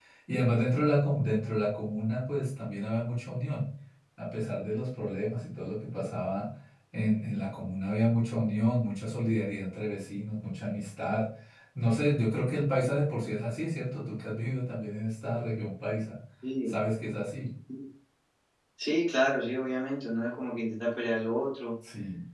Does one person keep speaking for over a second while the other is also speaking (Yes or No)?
No